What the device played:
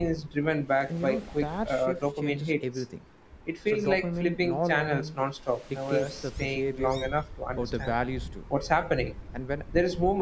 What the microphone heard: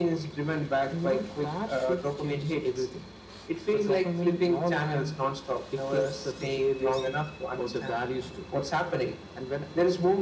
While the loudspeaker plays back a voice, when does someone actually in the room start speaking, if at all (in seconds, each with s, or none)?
none